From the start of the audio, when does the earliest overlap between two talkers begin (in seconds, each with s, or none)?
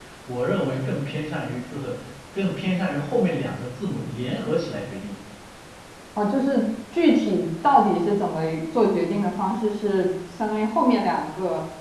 none